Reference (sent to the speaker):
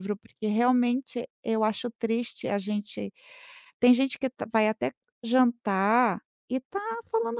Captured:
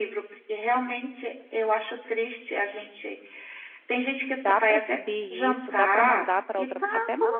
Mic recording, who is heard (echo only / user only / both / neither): both